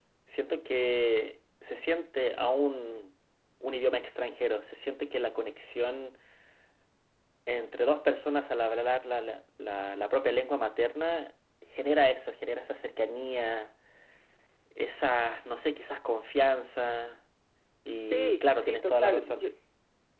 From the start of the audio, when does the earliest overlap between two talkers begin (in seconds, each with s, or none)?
18.1 s